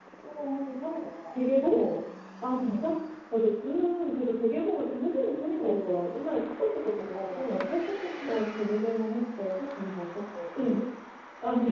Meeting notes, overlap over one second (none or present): none